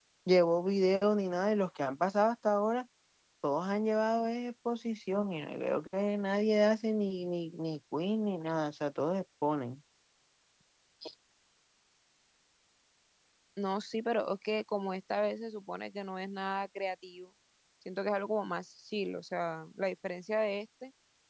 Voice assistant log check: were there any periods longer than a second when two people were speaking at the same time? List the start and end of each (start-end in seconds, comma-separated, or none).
none